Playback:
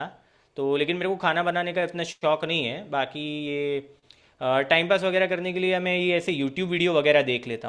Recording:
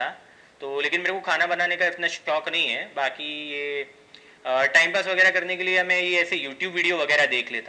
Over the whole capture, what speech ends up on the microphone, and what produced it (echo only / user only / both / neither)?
echo only